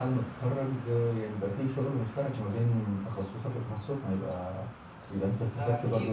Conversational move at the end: taking over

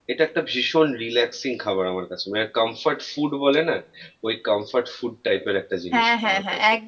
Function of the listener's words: taking over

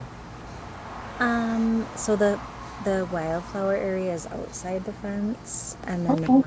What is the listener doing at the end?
listening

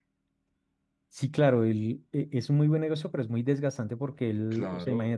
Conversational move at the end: listening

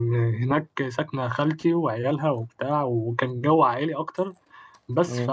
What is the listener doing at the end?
listening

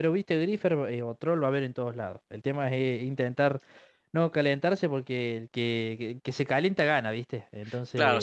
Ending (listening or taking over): taking over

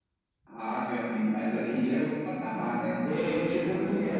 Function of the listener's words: taking over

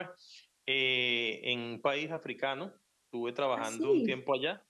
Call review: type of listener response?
listening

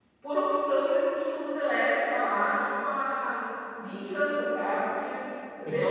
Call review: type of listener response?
listening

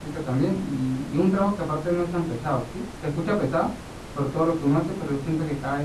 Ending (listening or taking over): listening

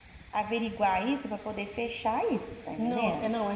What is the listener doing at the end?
taking over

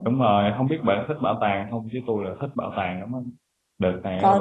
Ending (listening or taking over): listening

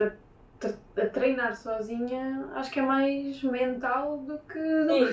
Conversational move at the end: taking over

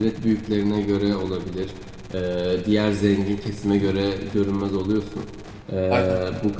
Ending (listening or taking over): listening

